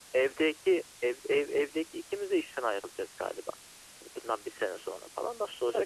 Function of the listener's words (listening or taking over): taking over